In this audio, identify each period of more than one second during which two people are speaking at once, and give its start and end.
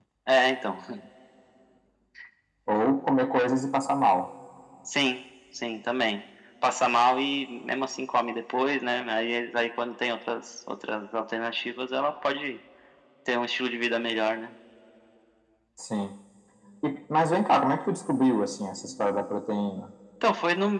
none

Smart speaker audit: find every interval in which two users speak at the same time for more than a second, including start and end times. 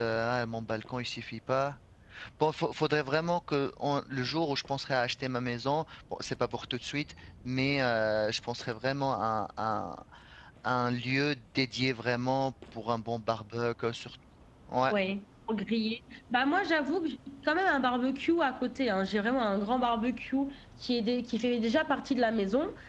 none

